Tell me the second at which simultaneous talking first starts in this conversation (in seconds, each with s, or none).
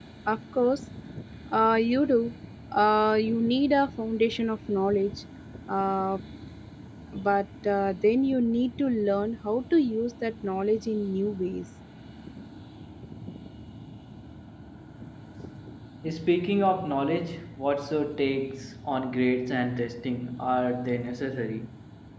none